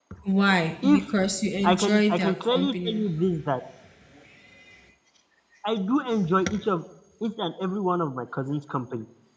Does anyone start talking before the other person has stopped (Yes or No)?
Yes